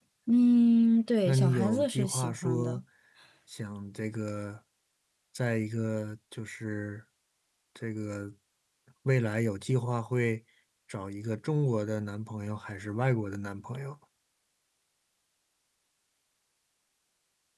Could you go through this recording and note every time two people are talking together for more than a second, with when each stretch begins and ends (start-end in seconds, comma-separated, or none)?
1.2-2.8